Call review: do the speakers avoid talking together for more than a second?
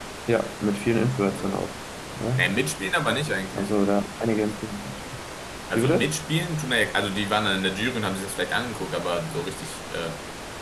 Yes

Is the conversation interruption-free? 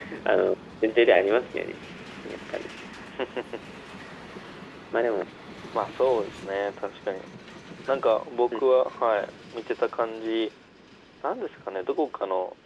Yes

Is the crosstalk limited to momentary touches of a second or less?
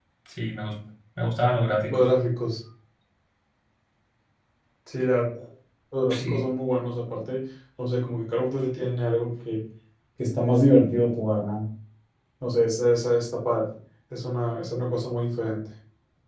Yes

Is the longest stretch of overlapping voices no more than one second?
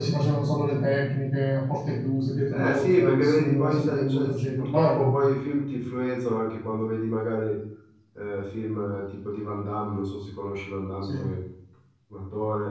No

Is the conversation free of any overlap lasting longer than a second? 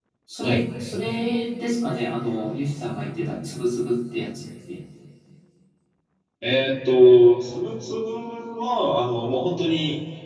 Yes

